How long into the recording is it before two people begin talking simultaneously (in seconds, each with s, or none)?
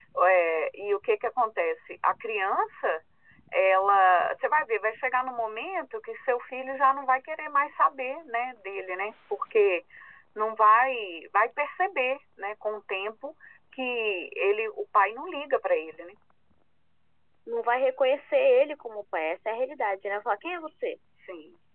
none